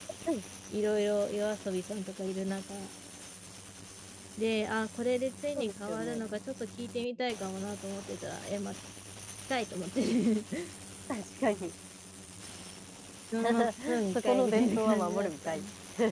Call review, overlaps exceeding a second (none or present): present